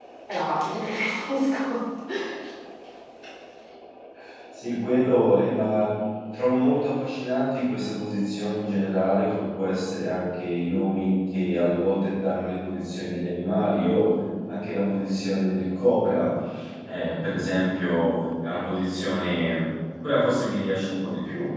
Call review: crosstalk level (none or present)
none